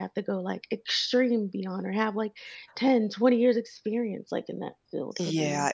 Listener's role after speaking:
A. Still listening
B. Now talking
B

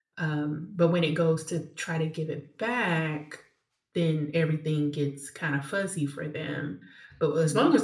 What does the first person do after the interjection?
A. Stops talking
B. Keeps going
B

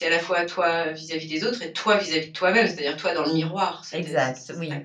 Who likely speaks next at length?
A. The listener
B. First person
A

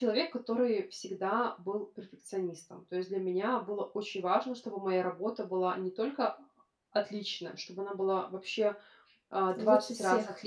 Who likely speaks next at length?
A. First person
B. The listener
A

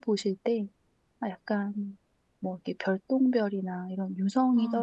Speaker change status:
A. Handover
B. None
B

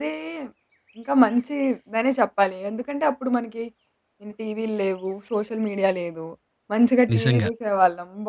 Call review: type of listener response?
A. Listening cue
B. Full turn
A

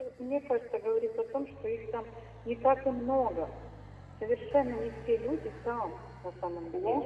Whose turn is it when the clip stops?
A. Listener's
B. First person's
A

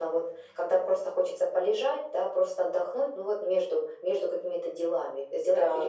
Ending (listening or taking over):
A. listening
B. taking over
B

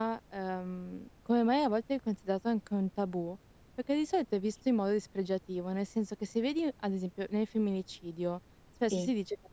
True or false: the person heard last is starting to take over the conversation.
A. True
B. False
B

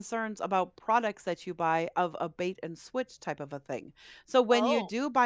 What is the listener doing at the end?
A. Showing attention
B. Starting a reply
A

